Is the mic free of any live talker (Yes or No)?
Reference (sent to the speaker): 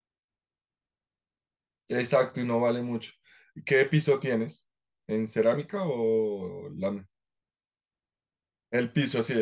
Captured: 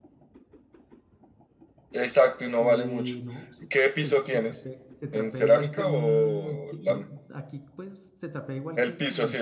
No